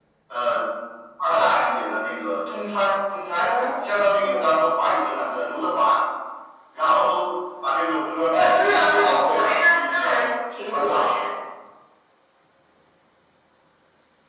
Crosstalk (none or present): present